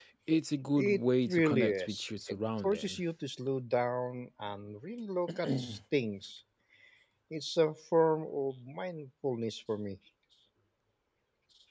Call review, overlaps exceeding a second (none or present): present